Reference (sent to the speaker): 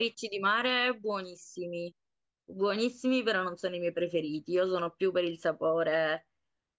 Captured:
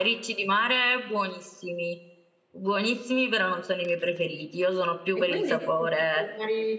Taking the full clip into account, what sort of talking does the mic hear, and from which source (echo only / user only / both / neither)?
both